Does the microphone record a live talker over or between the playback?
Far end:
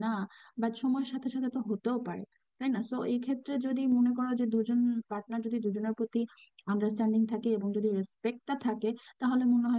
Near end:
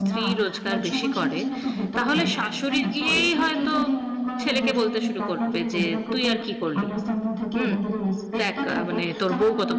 Yes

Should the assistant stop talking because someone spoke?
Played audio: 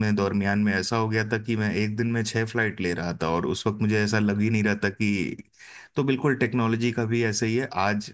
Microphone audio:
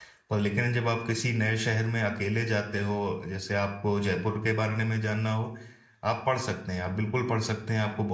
Yes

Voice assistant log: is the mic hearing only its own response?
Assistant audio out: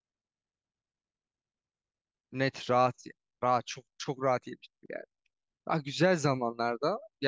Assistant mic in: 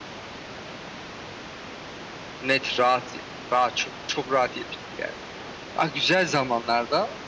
Yes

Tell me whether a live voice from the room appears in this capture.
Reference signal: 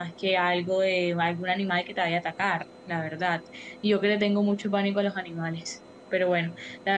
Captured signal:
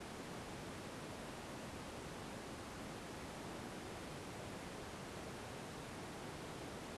No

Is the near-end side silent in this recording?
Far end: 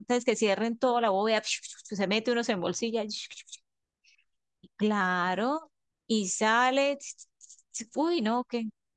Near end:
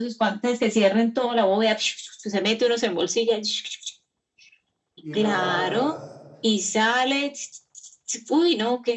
No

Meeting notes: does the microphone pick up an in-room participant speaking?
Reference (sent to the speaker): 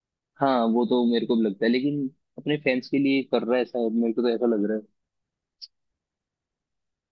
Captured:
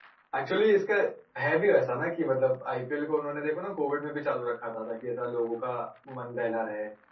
Yes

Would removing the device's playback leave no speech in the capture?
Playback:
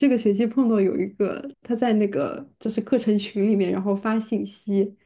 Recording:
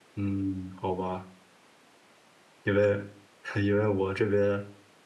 No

